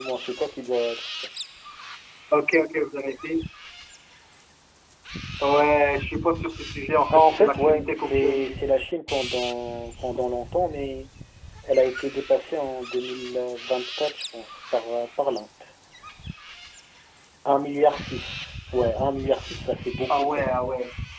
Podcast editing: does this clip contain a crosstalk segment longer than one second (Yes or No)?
Yes